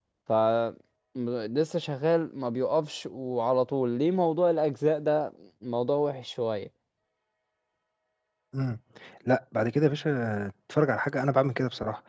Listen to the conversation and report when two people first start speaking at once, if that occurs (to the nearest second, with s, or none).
none